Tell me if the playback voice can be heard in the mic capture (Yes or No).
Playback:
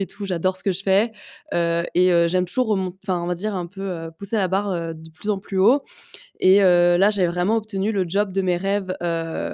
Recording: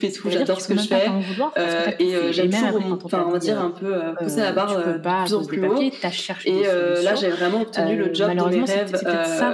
Yes